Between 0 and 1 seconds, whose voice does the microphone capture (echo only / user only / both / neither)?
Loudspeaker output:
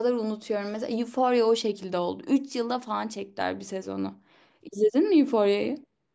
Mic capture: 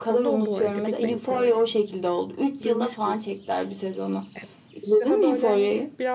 both